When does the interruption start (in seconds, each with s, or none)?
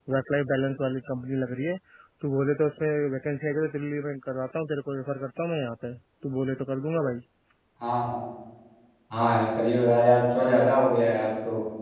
none